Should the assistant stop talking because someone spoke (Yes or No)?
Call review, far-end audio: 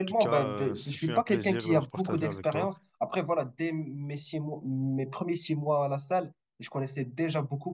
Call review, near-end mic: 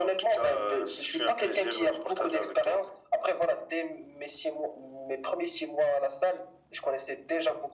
No